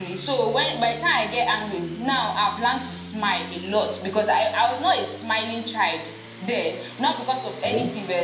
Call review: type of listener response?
listening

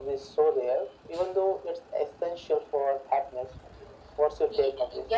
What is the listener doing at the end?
taking over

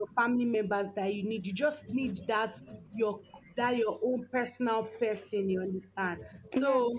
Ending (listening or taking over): listening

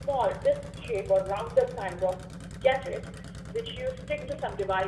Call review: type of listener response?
listening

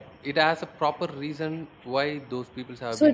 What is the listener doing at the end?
taking over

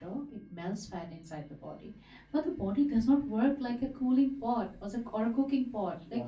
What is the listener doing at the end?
listening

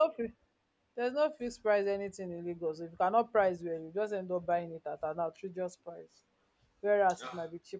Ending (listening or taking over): listening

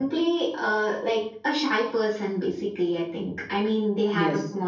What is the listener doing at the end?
listening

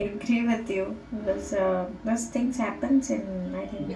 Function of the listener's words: taking over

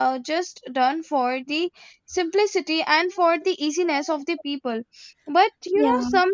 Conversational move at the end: listening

